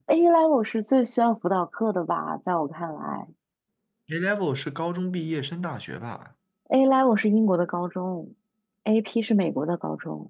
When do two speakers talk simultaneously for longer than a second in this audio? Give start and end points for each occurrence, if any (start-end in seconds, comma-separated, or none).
none